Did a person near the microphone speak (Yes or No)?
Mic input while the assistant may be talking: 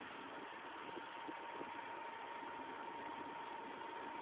No